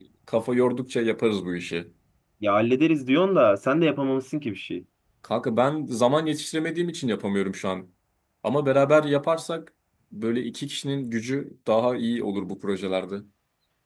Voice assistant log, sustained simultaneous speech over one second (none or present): none